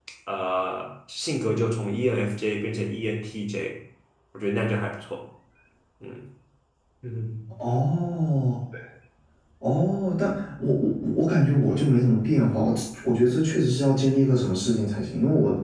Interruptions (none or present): none